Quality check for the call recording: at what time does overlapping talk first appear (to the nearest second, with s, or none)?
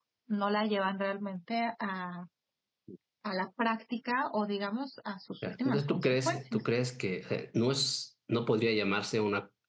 5 s